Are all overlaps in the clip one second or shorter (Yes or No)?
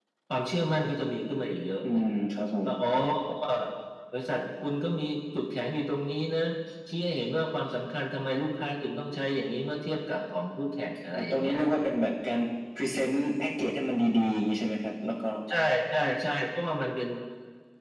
Yes